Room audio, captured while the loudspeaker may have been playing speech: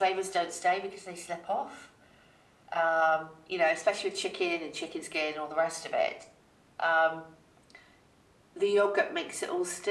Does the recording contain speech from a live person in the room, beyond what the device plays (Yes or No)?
No